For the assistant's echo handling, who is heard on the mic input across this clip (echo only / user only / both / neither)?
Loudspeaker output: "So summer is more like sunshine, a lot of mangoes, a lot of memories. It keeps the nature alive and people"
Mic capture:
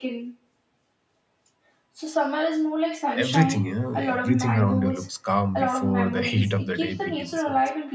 both